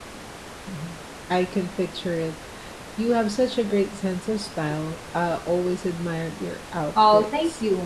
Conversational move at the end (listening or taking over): taking over